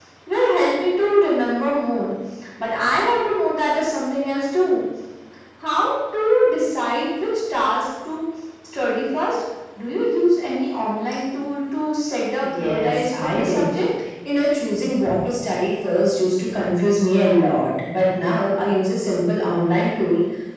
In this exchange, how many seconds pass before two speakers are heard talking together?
12 s

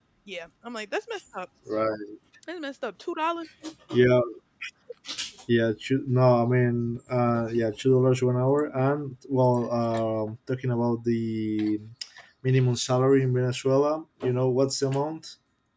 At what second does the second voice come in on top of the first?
none

